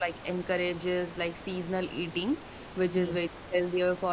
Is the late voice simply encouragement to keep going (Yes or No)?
Yes